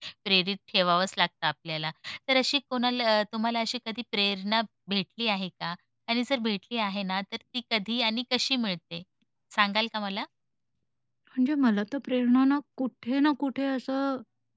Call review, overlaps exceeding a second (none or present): none